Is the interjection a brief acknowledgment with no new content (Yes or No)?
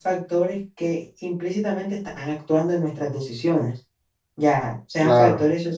Yes